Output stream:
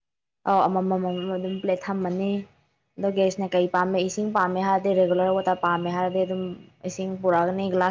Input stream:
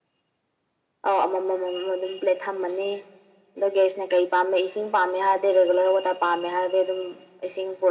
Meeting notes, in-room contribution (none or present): none